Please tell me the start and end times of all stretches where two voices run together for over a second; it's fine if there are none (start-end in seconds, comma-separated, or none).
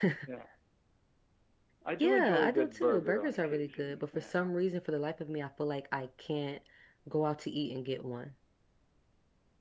2.0-4.5